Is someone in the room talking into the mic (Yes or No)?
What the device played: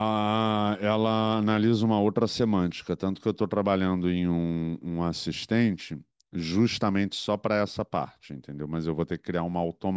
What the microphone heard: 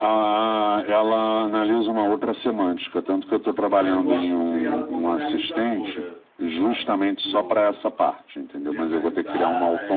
Yes